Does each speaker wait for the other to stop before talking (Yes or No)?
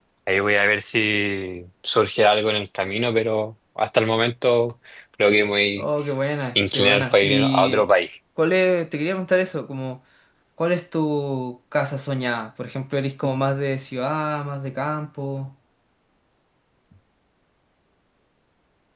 No